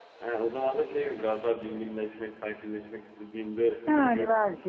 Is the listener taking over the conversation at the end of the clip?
Yes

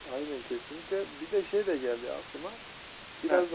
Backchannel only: Yes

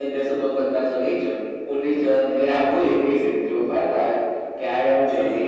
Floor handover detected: Yes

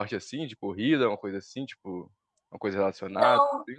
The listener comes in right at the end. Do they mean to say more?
Yes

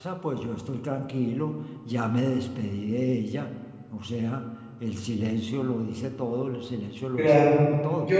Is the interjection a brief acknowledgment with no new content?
No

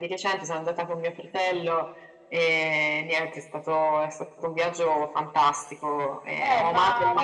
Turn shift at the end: Yes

